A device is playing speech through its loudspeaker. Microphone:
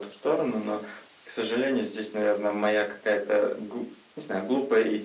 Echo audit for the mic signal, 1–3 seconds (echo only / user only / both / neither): echo only